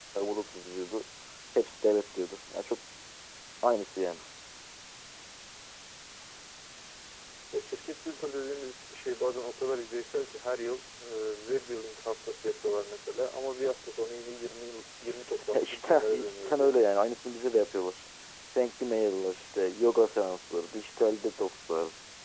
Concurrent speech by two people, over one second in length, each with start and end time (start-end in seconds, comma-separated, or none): 15.5-16.8